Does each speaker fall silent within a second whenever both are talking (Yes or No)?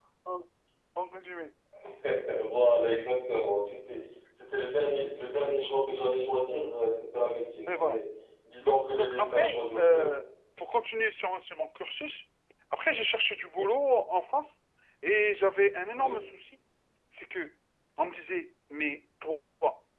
No